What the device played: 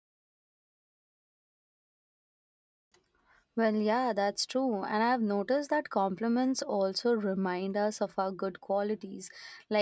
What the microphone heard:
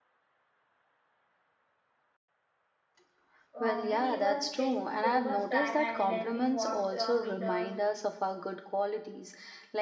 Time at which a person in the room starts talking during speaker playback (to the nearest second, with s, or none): 4 s